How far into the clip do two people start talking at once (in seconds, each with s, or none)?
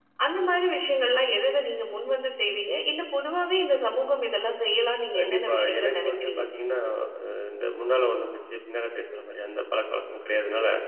5.1 s